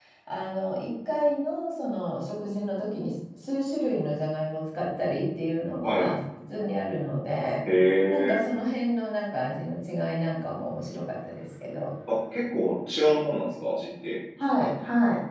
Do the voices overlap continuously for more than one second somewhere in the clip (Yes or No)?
No